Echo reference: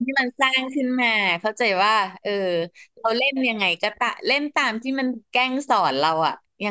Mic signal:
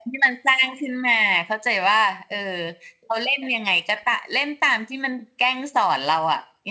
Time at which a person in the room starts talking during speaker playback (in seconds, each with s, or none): none